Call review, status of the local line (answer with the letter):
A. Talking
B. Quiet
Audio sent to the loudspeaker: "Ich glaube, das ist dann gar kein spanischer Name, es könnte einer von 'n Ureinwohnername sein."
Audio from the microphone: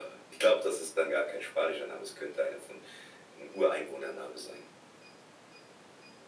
B